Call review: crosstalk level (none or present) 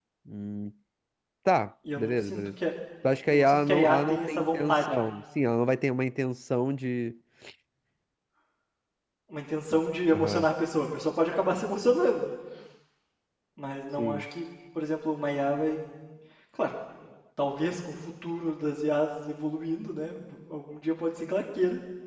present